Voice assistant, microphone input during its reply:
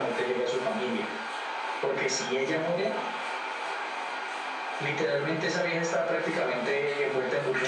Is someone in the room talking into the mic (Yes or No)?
No